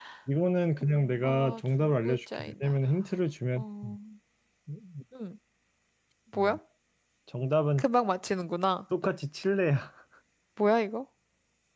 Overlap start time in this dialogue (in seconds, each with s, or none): 1.2 s